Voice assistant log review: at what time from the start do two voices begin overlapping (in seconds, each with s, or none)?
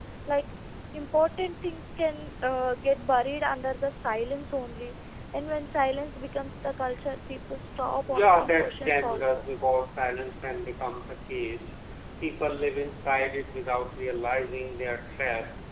8.1 s